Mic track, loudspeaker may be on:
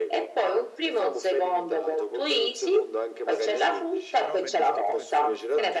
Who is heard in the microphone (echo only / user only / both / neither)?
both